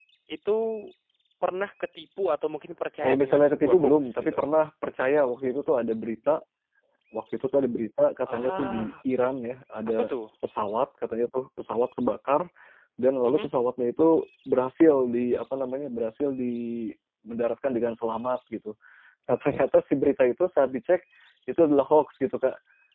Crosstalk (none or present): present